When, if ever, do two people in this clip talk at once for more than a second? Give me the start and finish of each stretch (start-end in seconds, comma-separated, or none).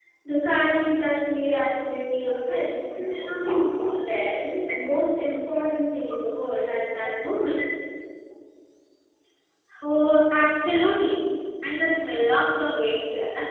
none